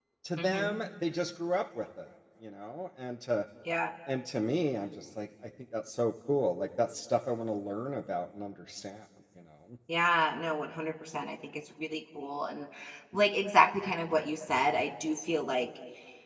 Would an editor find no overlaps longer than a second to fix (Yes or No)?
Yes